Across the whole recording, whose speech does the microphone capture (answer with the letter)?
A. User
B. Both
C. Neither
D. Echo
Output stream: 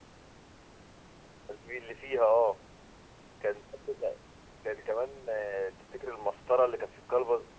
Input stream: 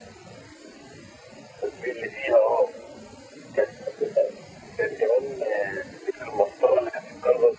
D